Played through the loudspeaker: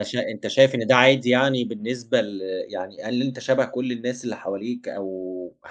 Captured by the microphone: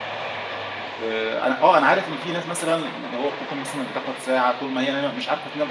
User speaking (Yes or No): Yes